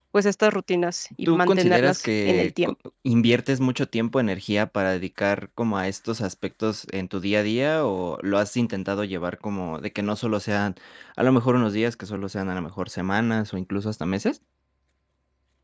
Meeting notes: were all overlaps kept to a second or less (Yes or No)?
No